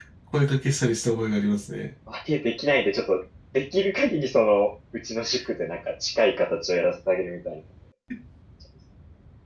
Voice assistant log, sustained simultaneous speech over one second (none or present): none